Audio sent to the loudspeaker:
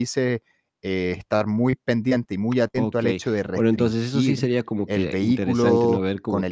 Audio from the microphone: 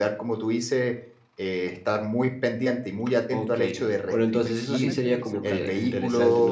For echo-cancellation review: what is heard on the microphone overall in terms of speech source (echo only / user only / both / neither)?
both